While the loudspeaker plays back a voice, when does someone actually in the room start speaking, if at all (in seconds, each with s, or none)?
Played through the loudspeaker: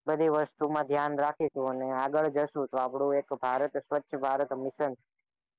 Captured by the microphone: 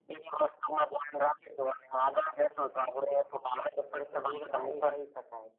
4.0 s